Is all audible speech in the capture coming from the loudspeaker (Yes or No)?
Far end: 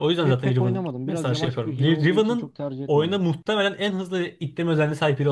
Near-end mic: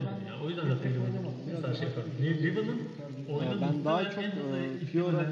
No